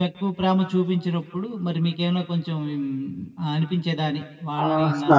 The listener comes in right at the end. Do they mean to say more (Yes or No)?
Yes